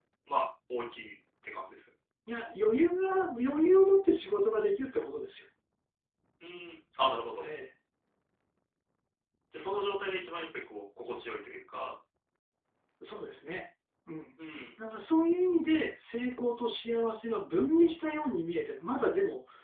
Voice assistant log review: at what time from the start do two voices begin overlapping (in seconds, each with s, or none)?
none